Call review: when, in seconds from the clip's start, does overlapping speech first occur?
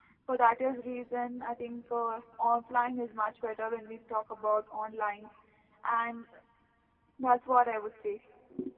none

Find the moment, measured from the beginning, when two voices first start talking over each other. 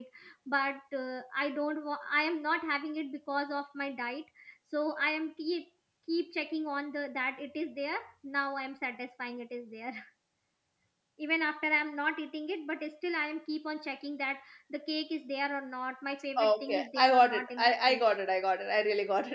16.4 s

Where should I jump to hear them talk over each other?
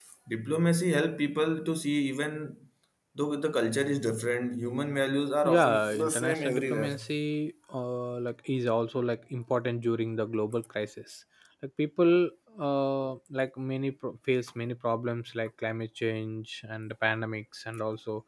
5.4 s

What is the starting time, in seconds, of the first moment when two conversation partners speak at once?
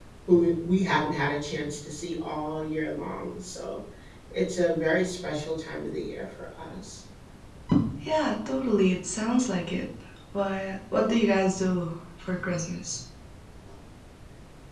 none

